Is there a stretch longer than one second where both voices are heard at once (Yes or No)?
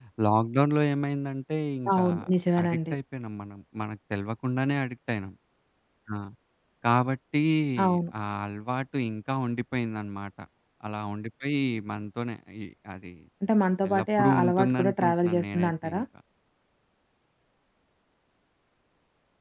Yes